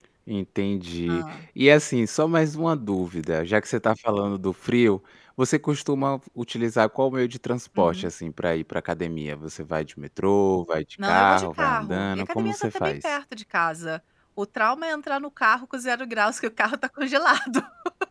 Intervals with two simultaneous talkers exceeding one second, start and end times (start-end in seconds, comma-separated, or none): 11.1-12.9